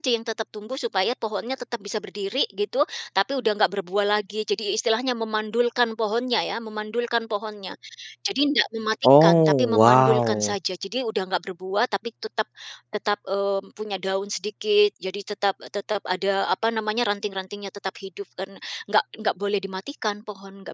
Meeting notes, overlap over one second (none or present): present